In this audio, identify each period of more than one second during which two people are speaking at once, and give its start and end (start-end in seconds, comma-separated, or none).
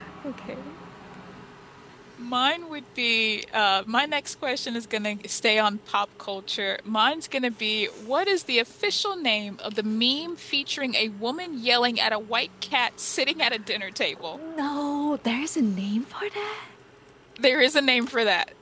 none